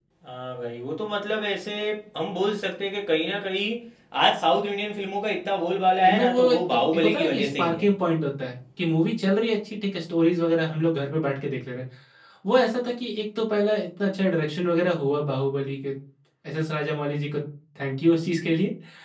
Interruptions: present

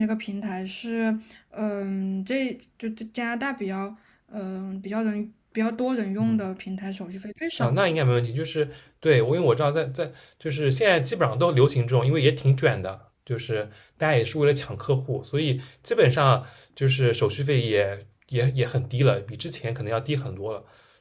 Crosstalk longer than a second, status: none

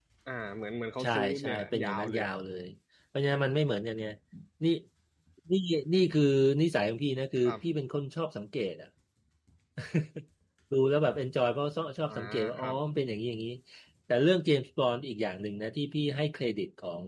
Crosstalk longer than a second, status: present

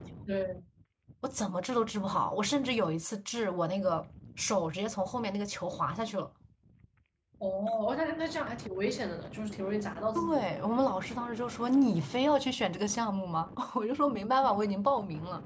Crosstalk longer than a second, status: none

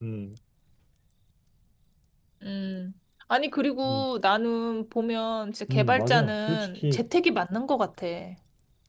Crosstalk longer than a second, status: present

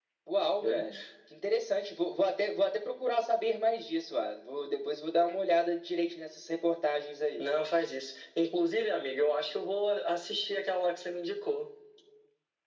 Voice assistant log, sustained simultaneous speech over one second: none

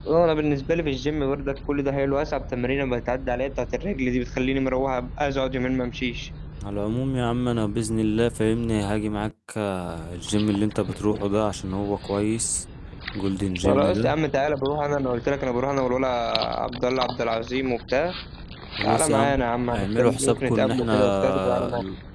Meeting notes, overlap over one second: present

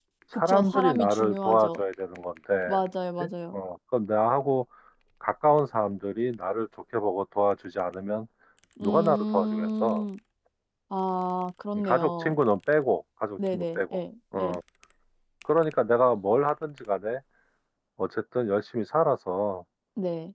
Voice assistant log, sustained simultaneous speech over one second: present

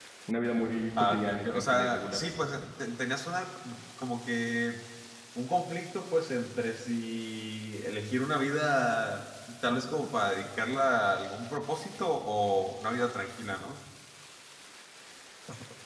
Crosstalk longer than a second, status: present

